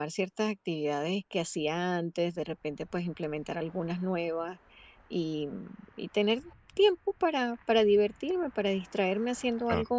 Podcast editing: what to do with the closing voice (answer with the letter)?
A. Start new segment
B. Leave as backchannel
B